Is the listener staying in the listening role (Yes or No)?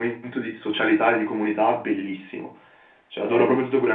No